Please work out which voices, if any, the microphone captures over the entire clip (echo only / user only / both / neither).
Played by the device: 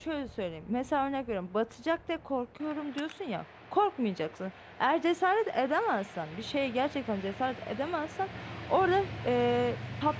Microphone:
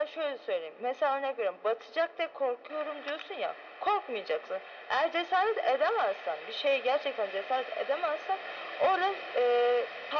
echo only